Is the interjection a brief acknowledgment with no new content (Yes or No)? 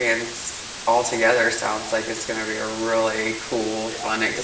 No